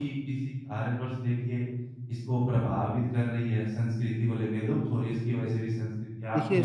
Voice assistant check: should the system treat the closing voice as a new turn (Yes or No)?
Yes